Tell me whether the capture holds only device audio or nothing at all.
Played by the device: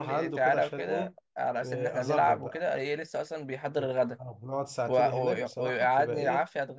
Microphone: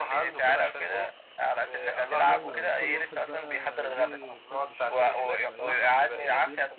No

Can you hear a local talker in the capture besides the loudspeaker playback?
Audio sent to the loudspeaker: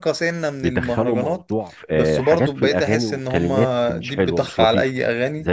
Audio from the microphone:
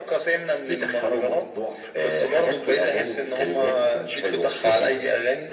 No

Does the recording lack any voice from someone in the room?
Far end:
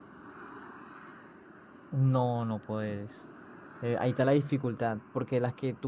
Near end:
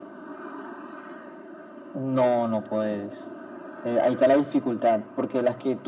Yes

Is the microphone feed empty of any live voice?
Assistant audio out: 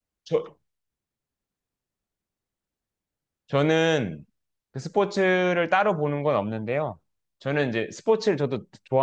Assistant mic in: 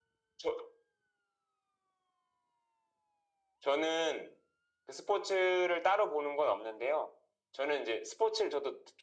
Yes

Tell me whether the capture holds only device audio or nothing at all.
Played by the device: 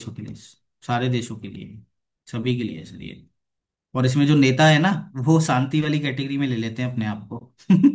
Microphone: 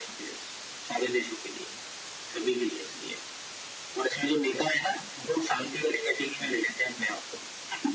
Yes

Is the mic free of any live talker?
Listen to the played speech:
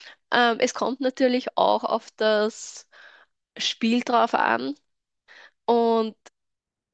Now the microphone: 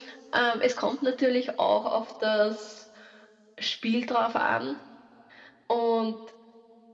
Yes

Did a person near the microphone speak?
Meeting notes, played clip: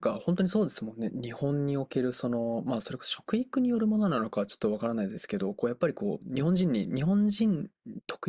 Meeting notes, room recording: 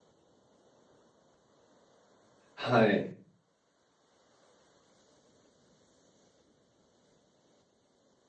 Yes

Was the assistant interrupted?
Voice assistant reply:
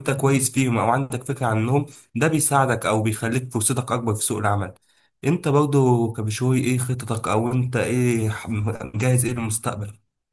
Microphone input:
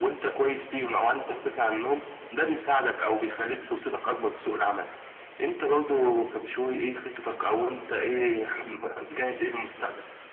No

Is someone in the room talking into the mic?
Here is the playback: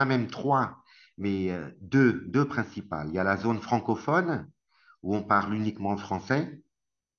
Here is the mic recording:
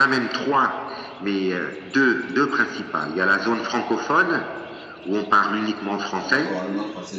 Yes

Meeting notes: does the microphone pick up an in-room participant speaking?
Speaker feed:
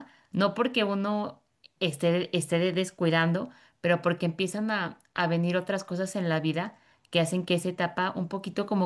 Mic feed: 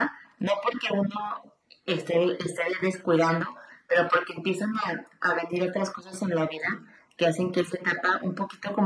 No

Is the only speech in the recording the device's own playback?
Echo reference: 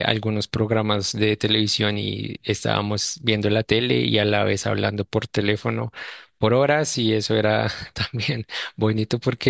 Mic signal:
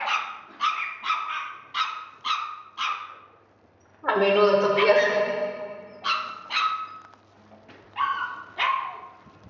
No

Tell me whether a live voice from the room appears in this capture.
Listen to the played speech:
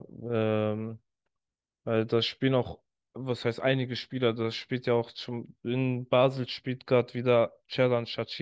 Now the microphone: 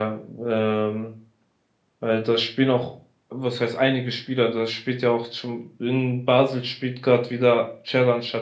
No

